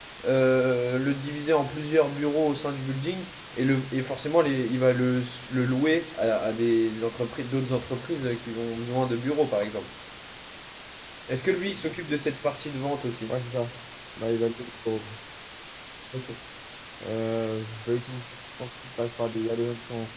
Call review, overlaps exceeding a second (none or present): none